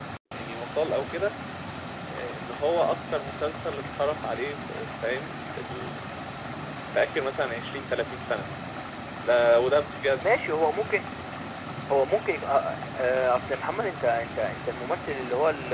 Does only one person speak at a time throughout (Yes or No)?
Yes